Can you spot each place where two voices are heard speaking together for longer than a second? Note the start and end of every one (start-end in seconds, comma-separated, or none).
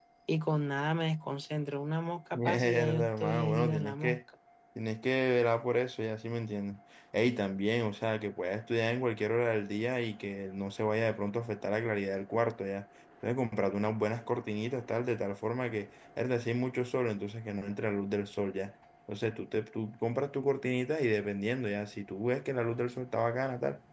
2.3-4.2